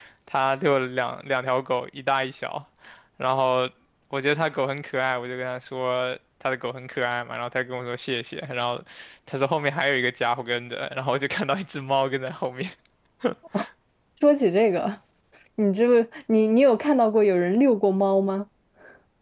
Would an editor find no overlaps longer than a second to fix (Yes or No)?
Yes